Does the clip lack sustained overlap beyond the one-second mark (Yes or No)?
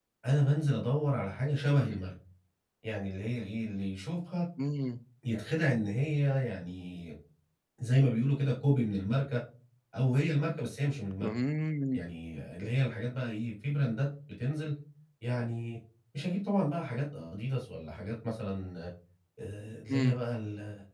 Yes